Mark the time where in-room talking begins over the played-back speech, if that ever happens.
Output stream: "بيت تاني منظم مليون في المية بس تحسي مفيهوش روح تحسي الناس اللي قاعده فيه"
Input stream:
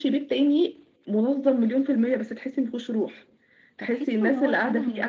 4 s

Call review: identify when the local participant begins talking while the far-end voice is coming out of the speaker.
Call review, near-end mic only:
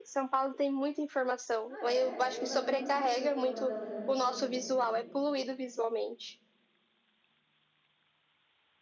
2 s

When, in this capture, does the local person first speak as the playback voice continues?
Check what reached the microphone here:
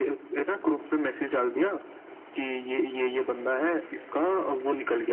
none

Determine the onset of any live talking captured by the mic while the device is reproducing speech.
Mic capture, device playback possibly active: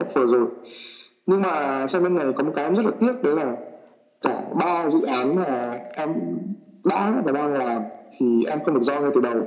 none

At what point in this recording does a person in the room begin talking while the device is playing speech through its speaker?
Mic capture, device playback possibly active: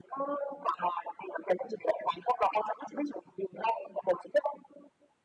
none

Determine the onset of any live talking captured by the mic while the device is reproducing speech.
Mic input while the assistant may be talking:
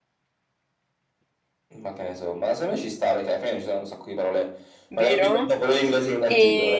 5 s

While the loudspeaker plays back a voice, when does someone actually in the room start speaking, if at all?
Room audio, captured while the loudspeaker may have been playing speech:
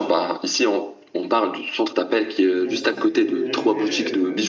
2 s

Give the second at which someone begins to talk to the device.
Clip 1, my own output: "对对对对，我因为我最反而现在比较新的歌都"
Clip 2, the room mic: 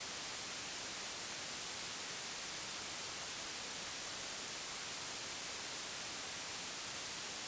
none

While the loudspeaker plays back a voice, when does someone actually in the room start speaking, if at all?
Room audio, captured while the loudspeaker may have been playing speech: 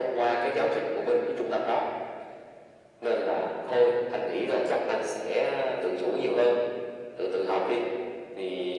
none

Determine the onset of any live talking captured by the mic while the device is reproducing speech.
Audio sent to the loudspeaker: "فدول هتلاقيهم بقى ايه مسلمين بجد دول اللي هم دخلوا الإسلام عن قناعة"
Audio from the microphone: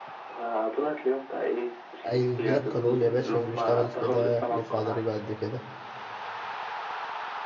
2 s

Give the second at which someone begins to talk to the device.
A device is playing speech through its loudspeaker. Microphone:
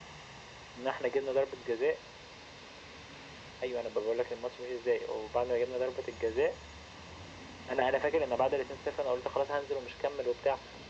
none

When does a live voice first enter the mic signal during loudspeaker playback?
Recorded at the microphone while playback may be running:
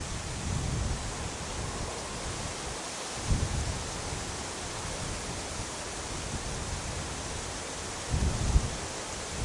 none

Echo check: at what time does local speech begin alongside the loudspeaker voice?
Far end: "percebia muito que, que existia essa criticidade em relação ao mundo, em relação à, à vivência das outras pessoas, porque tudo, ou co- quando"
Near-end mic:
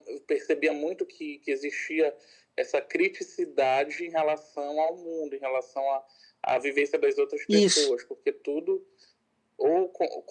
7 s

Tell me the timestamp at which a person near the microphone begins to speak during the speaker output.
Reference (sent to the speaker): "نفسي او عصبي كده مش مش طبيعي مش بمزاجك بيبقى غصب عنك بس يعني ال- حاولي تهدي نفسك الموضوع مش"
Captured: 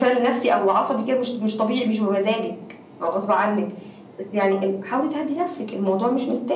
none

